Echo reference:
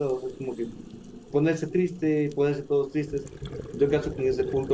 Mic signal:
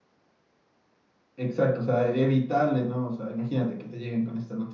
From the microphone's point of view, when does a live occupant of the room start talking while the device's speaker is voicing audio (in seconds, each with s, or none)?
1.4 s